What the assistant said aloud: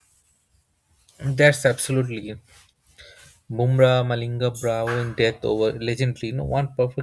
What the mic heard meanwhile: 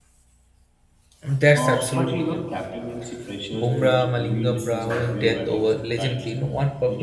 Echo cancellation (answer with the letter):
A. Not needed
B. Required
B